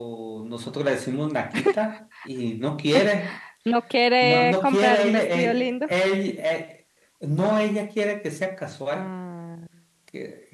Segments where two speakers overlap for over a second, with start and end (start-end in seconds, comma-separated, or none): 4.2-5.8